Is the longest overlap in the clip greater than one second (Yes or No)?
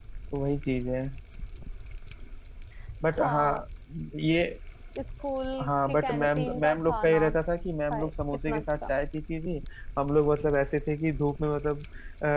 Yes